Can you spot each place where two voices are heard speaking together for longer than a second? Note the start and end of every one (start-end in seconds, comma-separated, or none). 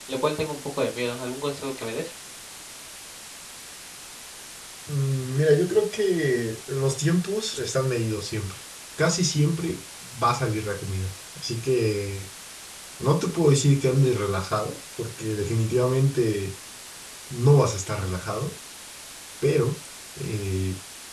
none